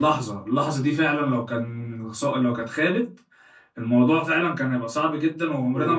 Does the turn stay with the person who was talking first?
No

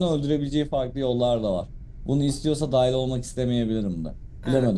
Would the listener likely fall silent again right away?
No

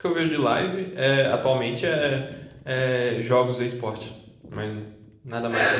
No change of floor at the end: No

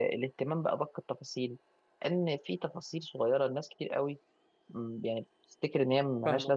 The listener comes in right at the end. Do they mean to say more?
Yes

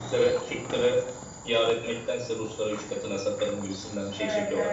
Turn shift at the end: Yes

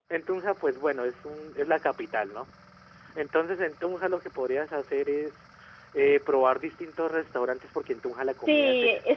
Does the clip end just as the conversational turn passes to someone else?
Yes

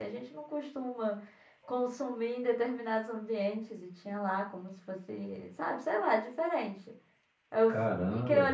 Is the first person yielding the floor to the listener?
No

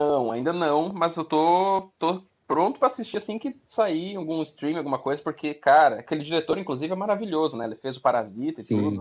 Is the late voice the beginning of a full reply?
Yes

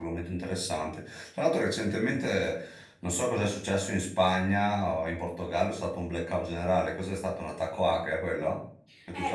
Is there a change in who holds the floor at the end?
Yes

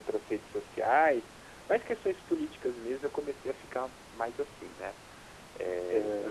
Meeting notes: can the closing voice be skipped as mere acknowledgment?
No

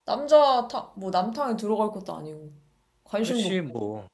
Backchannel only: No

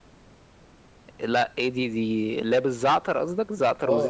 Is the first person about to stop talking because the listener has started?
Yes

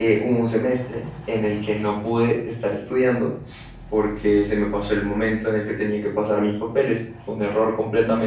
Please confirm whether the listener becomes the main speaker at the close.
No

